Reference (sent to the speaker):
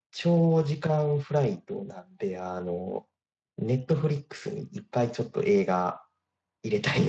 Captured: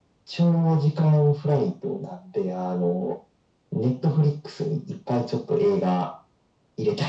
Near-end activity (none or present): none